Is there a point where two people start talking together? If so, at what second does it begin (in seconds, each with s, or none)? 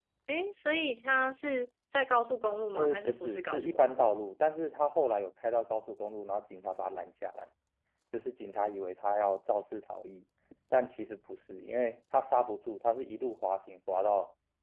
2.7 s